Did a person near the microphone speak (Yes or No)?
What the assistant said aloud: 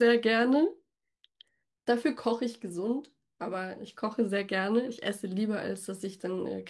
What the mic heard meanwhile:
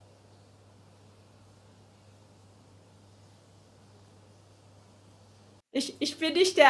Yes